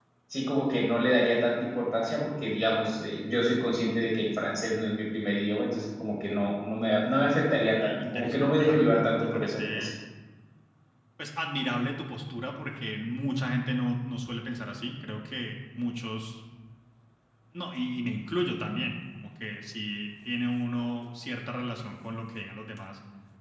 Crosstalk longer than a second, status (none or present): present